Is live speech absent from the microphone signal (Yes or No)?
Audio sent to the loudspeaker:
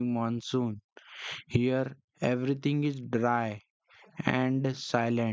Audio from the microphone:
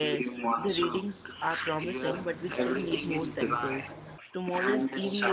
No